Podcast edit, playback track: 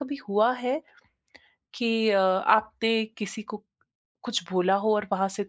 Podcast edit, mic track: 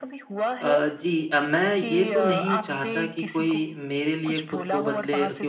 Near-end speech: present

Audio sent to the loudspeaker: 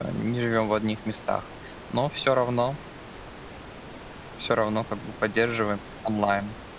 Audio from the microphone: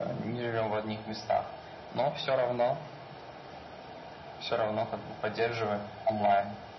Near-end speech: none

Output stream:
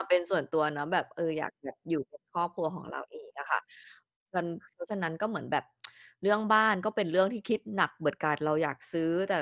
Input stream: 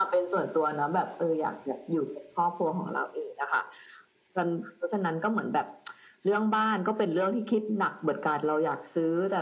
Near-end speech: none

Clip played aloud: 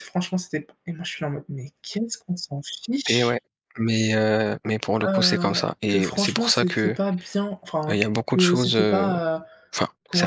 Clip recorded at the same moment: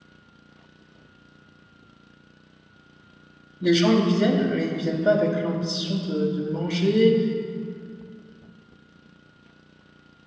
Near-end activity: present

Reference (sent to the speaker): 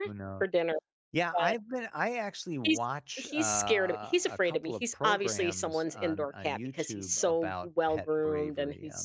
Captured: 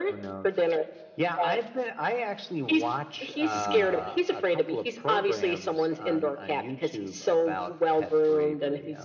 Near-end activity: present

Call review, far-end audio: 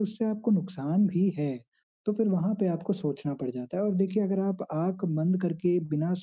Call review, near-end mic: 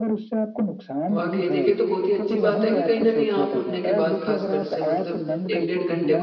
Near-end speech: present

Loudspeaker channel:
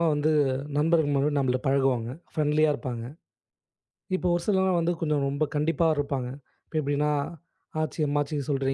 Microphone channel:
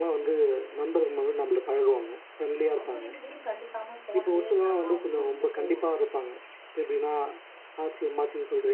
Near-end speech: present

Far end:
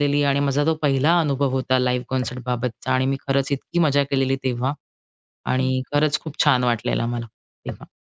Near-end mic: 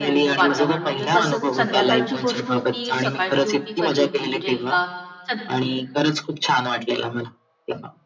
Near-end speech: present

